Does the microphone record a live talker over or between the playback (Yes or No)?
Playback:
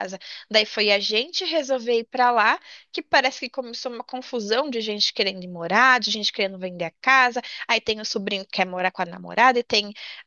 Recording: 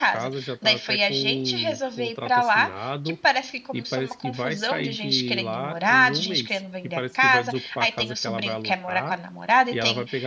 Yes